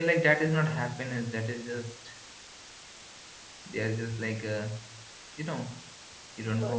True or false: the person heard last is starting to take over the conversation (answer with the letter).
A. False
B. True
A